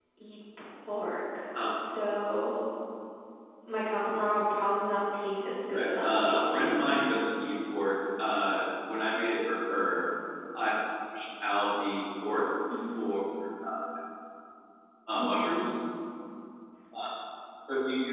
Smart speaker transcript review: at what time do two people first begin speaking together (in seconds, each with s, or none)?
5.7 s